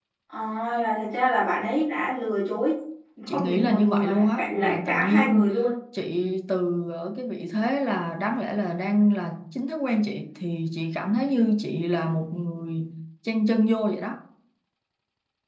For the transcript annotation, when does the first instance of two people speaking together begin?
3 s

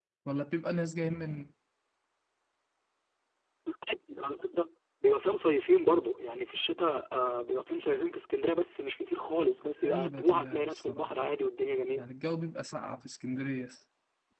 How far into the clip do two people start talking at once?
10 s

